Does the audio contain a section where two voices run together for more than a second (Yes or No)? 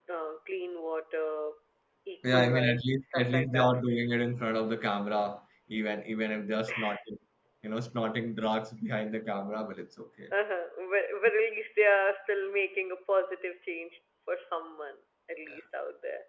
Yes